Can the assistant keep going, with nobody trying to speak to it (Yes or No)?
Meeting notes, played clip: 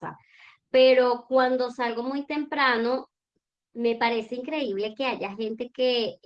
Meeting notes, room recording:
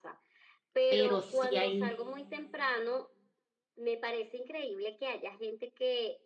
No